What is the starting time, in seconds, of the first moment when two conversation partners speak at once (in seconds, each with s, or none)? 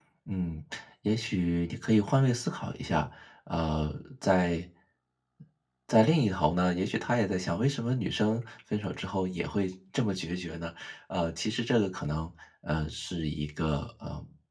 none